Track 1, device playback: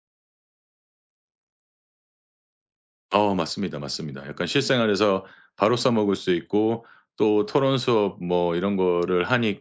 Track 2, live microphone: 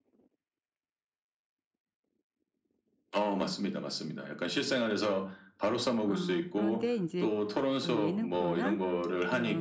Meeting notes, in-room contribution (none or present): present